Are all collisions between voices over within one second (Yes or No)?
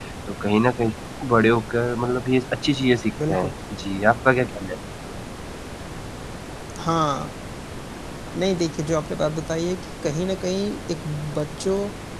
Yes